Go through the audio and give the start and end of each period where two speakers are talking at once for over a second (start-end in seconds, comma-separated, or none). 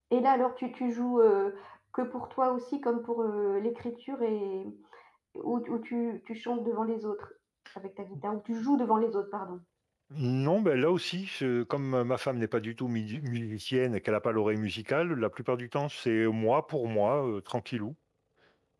none